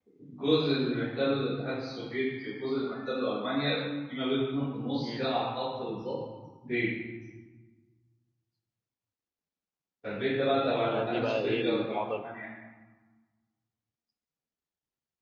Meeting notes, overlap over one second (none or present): present